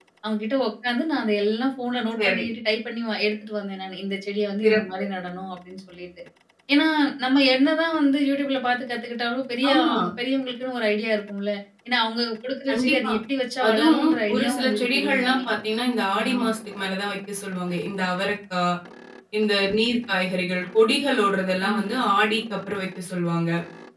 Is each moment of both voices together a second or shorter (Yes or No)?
No